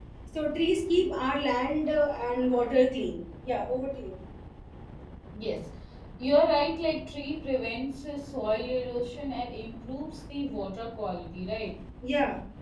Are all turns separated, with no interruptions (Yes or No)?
Yes